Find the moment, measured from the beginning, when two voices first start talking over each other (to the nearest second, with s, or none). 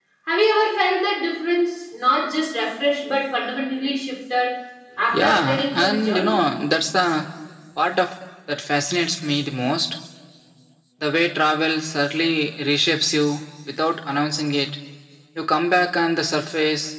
5 s